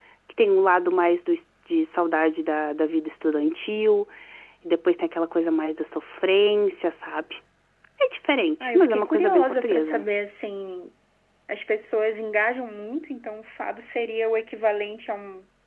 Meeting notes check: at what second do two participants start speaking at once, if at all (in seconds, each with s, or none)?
8.6 s